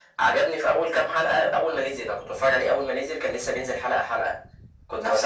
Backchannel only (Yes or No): Yes